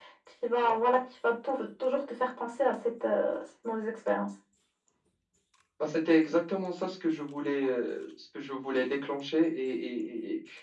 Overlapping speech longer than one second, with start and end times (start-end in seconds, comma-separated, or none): none